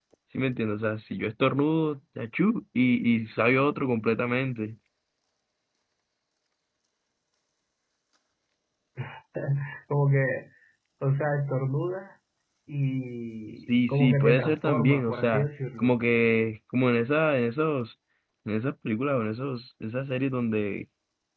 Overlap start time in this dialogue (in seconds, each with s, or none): 13.6 s